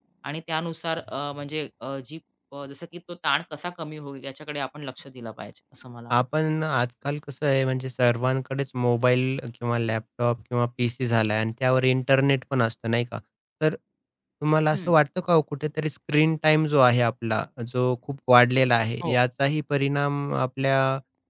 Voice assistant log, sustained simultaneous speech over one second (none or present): none